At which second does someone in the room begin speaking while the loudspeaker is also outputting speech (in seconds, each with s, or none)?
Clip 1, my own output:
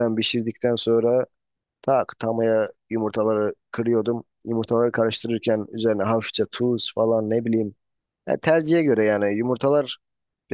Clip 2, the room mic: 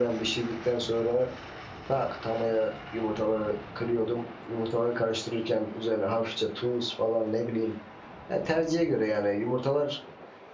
none